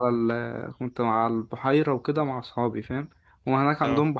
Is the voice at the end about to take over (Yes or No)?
No